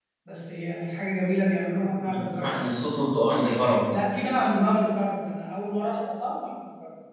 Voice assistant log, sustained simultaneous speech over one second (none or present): none